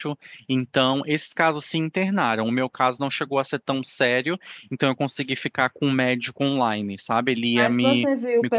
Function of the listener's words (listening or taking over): taking over